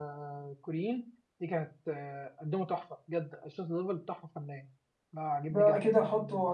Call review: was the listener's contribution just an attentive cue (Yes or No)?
No